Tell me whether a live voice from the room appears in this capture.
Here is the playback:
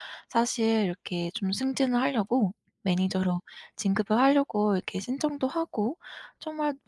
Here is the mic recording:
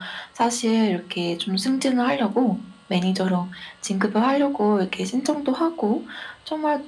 No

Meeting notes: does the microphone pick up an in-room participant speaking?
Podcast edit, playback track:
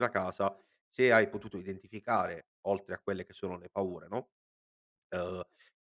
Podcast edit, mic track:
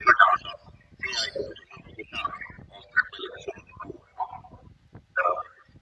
No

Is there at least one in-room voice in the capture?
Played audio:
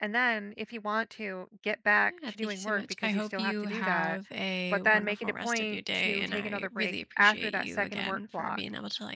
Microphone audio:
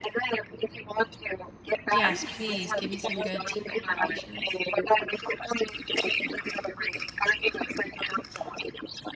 Yes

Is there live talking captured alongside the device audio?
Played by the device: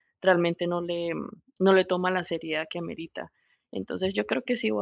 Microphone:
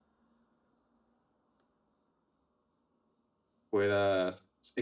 Yes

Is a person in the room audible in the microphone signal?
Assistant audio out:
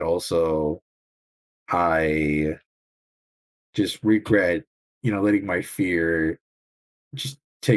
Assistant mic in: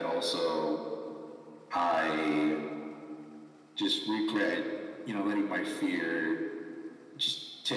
No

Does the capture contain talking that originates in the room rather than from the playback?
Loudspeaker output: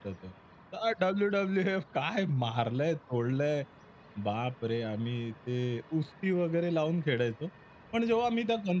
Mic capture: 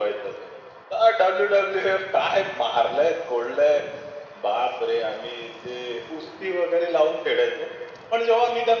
No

